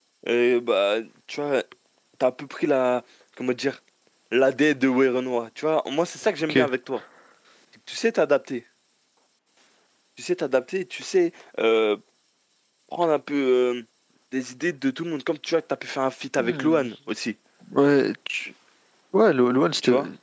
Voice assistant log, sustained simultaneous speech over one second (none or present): none